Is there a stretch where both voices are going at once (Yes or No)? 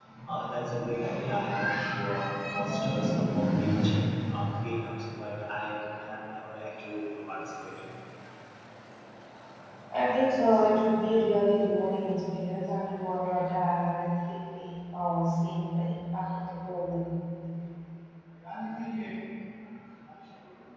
No